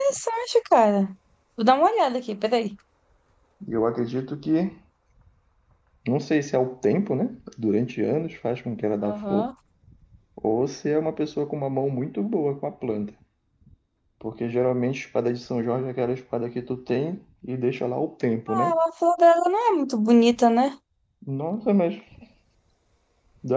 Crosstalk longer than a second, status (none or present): none